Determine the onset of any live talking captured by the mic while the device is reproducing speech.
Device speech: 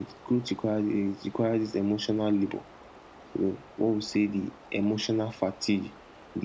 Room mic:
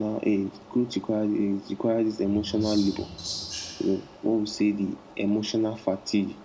2.2 s

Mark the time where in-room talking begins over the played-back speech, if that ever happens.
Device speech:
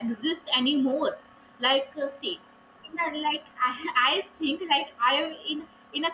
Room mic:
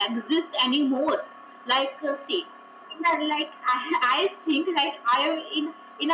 none

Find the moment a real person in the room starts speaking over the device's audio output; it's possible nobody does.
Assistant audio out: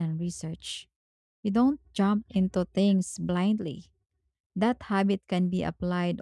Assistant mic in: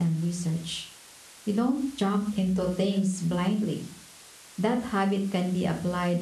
none

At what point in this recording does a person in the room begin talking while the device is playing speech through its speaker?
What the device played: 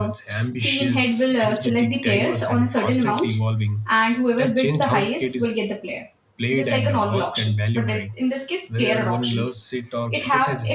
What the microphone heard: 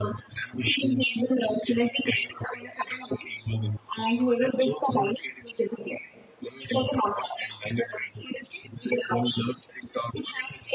none

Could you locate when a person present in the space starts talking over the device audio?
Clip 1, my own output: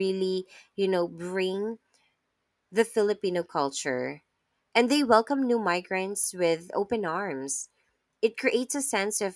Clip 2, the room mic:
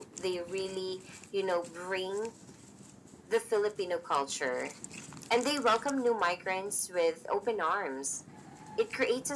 none

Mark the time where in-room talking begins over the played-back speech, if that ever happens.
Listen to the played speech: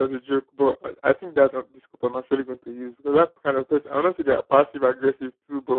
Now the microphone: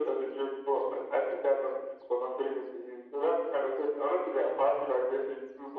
none

